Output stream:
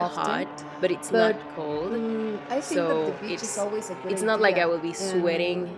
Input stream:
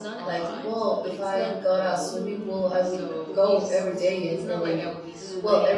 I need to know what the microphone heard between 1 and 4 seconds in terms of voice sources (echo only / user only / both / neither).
both